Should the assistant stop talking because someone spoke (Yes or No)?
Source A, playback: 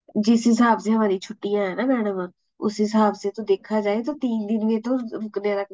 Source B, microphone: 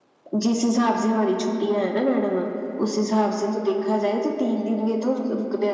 No